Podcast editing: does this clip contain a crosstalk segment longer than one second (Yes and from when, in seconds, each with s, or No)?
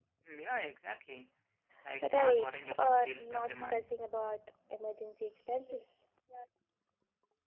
Yes, from 2.0 s